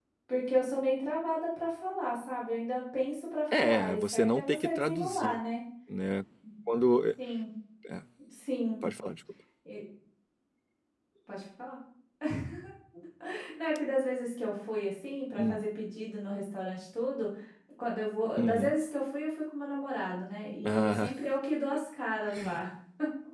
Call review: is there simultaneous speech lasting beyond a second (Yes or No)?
Yes